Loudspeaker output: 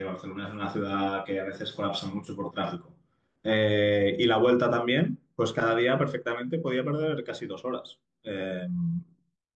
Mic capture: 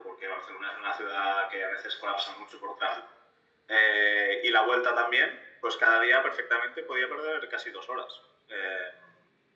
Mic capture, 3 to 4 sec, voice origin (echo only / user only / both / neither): echo only